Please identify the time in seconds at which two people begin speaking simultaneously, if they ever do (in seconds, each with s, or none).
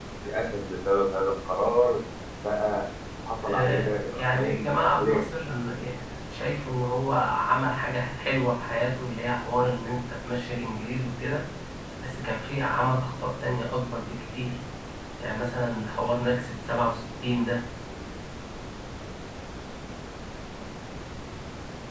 3.4 s